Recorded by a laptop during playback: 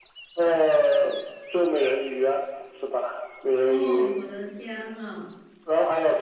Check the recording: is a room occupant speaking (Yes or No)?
Yes